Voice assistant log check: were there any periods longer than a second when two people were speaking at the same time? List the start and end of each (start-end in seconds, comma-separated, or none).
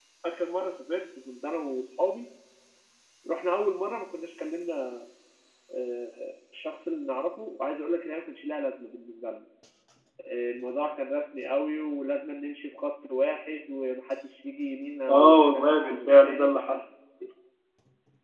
15.1-16.8